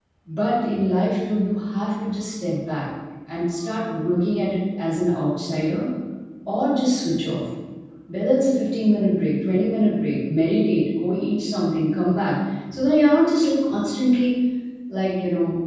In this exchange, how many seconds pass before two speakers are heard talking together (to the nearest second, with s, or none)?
none